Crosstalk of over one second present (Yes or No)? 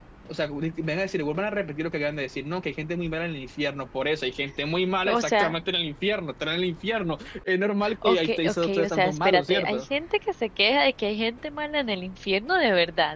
Yes